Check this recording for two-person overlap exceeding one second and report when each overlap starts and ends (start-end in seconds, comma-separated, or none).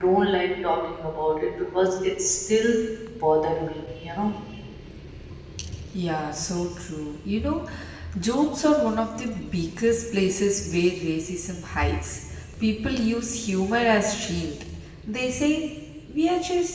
none